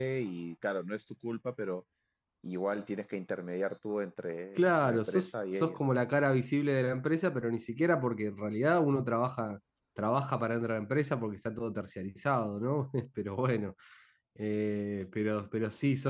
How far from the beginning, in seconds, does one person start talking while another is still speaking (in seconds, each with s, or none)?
4.5 s